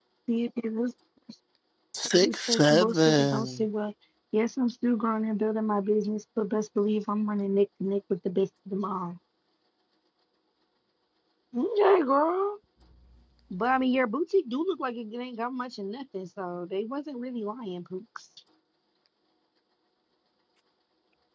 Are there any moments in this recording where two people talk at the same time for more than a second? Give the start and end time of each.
2.1-3.7

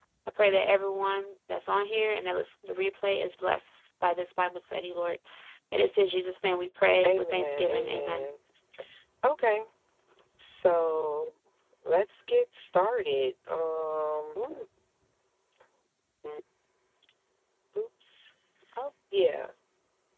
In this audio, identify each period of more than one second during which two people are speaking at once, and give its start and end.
7.0-8.3

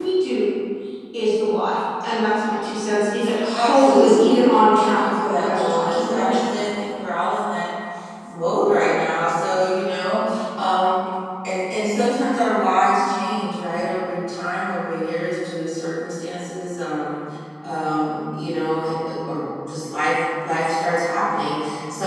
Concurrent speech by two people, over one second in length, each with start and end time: 3.5-6.4

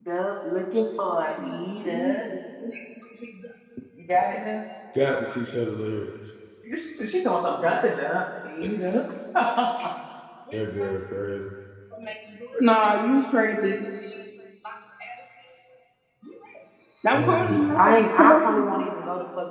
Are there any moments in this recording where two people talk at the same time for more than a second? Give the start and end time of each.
17.1-18.8

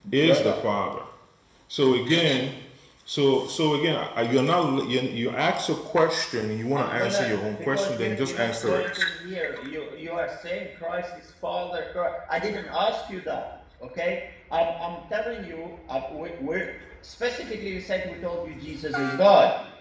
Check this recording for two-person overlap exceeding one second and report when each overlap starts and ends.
6.7-9.0

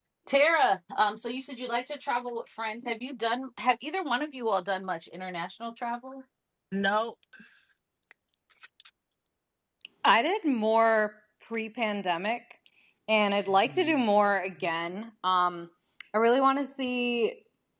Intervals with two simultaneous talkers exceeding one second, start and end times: none

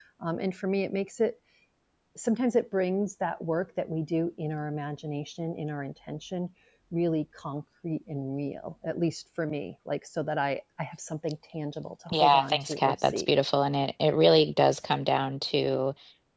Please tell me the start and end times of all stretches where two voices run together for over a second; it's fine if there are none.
12.1-13.3

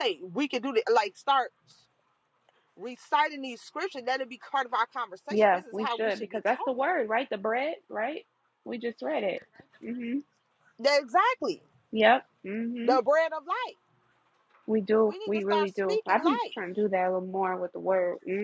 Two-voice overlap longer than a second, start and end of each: 5.3-6.7, 15.1-16.4

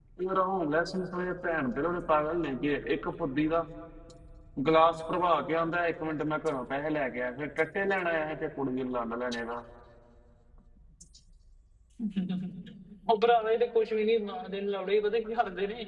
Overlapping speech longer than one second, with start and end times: none

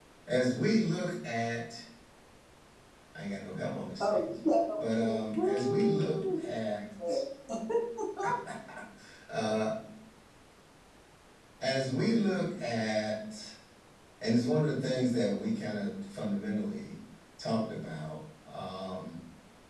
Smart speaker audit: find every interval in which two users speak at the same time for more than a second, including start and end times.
5.0-6.4

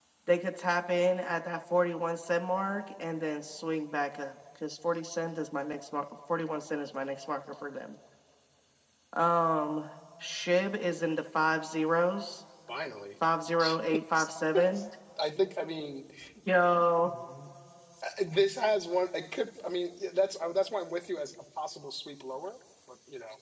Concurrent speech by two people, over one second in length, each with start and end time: 13.6-14.8

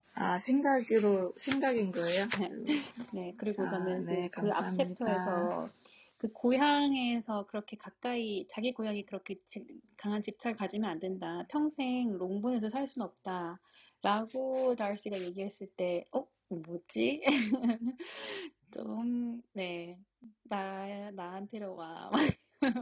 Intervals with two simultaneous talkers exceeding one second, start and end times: 3.6-5.5

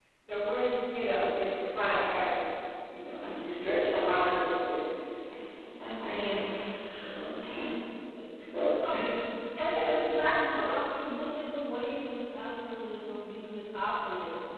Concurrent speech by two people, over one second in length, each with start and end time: none

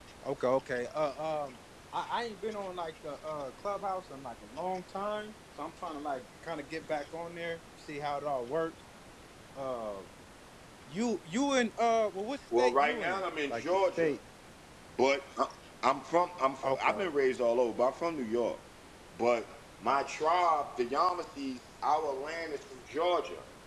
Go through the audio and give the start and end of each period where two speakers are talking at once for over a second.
12.6-14.1

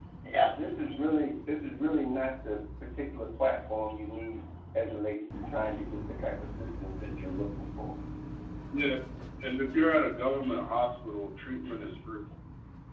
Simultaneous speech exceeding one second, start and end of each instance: none

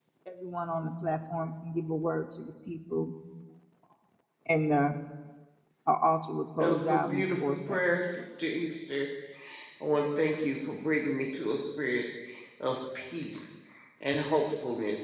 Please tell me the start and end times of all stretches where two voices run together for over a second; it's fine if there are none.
6.7-8.2

